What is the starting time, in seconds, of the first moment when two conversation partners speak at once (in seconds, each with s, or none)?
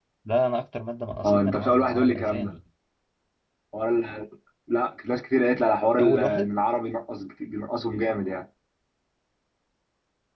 1.2 s